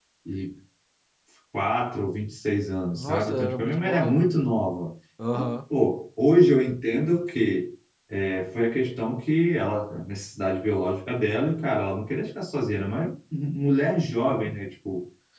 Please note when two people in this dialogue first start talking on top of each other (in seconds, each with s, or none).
3.0 s